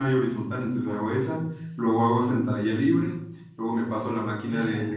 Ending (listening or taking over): listening